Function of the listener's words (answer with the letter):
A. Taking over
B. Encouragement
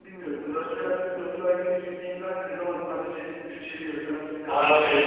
A